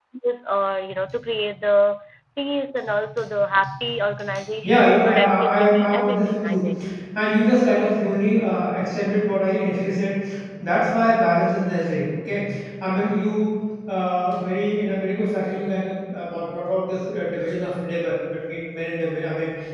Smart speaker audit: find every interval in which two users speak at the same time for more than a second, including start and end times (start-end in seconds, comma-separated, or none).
4.6-6.7